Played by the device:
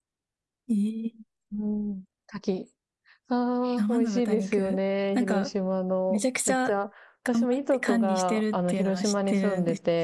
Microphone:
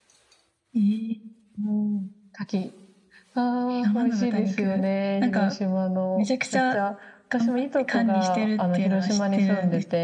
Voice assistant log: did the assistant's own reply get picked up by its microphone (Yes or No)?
Yes